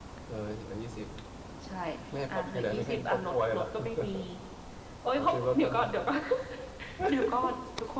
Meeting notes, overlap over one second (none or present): present